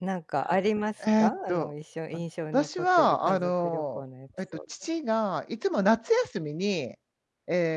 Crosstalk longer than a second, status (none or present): present